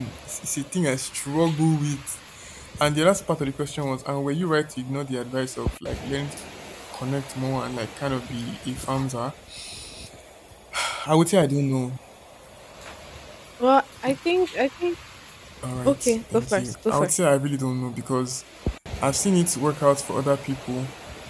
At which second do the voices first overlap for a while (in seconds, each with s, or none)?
15.8 s